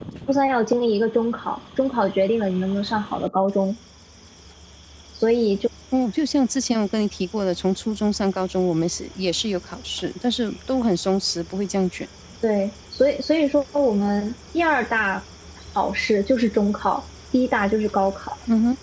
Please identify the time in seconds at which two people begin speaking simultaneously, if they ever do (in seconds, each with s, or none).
none